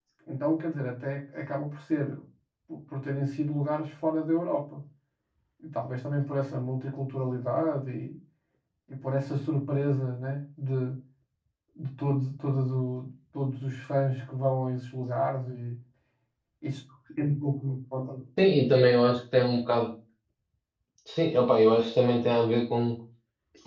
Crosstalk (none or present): none